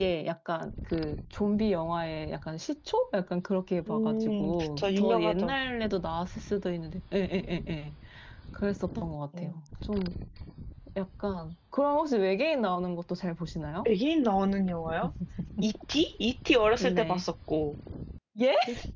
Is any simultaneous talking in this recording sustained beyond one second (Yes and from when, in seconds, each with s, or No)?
Yes, from 3.9 s